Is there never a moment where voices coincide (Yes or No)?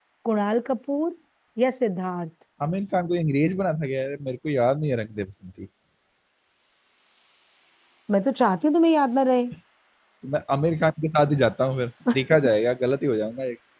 Yes